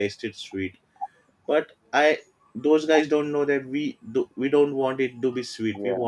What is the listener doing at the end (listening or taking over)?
listening